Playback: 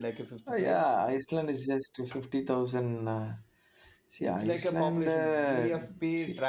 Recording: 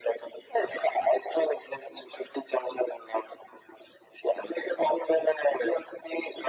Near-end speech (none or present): none